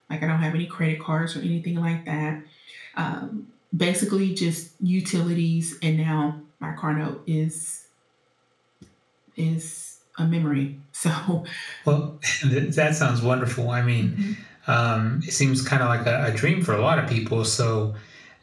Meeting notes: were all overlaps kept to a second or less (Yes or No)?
Yes